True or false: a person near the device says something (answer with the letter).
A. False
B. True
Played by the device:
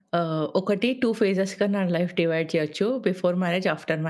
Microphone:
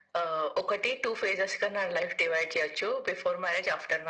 A